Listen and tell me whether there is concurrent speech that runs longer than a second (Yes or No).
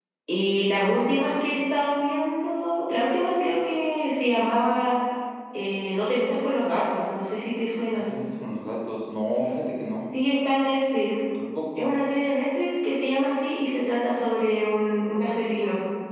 No